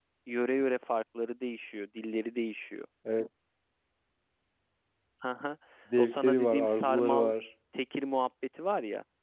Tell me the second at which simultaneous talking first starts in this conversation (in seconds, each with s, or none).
6.0 s